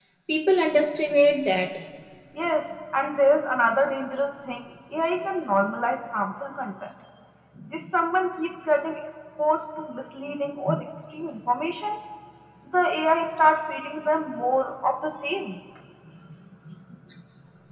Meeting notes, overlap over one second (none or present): none